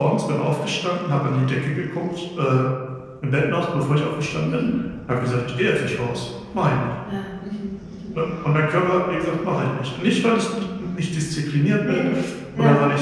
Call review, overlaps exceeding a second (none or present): none